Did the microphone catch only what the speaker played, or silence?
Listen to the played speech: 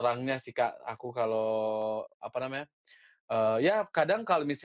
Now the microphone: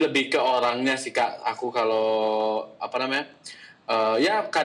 Yes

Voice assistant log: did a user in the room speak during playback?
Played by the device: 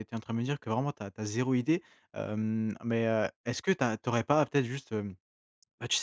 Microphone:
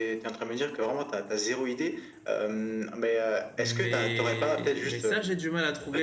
Yes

